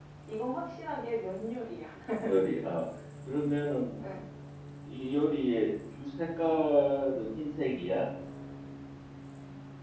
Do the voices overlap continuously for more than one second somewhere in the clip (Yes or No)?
No